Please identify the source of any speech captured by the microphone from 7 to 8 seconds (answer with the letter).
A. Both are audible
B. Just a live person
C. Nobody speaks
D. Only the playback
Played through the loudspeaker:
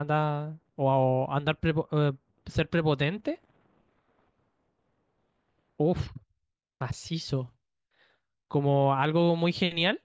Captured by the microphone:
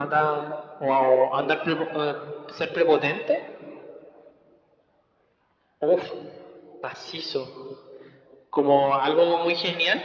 D